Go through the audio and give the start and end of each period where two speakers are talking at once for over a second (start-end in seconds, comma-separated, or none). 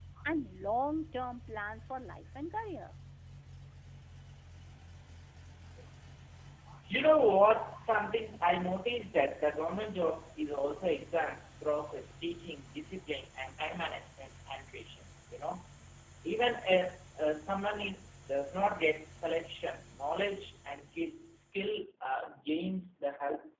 none